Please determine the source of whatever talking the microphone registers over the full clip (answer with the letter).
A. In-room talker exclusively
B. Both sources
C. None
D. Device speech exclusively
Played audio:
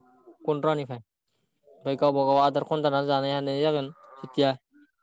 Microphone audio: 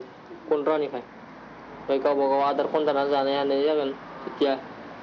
D